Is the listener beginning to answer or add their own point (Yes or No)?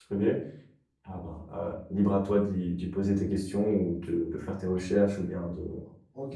Yes